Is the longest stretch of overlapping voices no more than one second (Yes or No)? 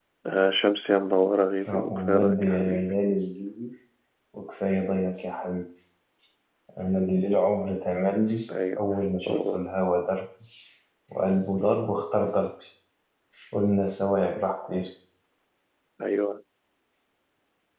No